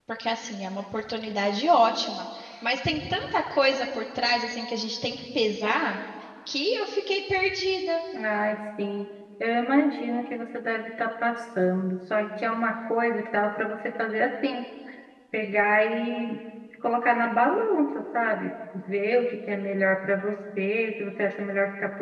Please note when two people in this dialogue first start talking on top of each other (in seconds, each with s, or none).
none